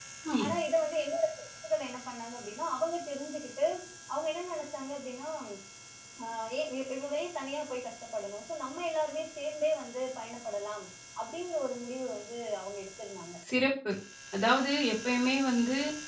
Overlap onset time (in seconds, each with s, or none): none